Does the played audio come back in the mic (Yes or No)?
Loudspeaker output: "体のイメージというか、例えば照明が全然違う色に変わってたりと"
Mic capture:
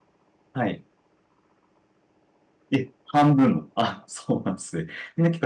No